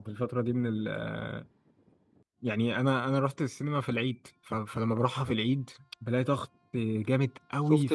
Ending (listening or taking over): taking over